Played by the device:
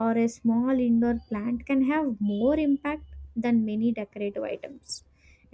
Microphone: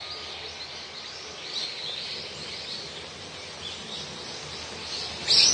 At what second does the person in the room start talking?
none

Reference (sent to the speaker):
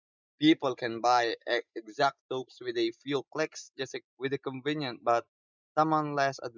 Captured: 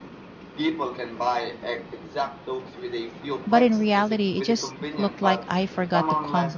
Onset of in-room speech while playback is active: 3 s

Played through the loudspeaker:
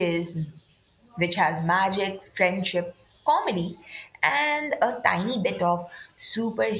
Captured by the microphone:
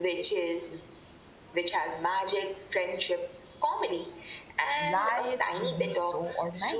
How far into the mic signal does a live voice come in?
5 s

